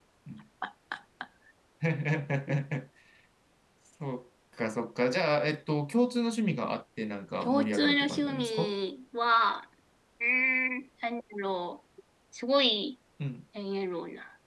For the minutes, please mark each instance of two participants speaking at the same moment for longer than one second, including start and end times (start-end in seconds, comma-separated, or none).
7.4-8.7